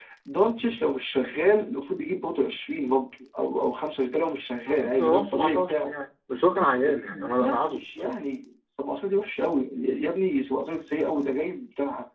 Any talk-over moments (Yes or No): Yes